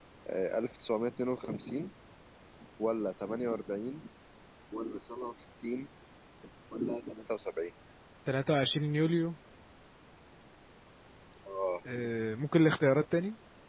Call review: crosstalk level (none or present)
none